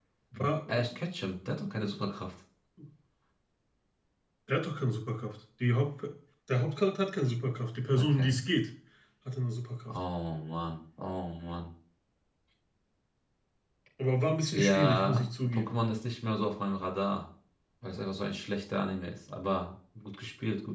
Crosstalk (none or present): present